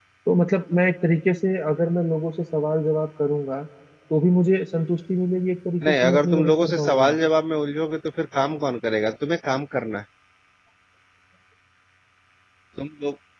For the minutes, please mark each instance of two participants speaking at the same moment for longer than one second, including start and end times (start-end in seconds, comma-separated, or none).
5.8-7.2